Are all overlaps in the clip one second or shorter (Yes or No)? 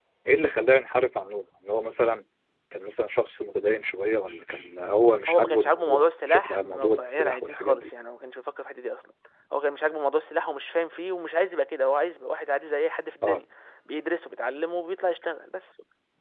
No